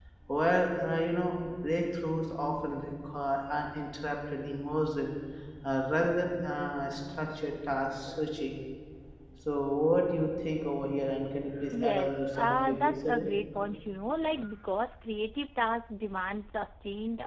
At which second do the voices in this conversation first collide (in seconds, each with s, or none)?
11.8 s